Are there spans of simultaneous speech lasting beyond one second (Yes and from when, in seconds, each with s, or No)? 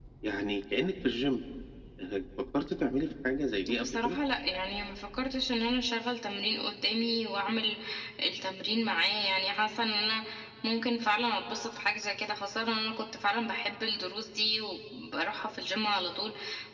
No